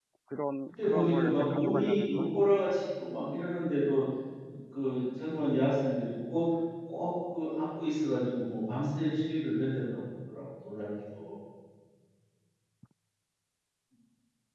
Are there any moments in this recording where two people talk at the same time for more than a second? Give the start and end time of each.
0.8-2.8

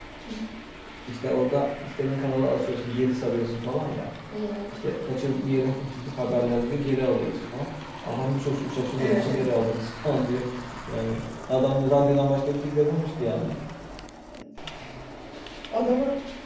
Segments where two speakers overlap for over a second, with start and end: none

